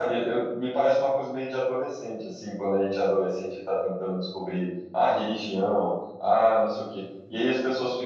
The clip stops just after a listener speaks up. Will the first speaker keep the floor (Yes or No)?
Yes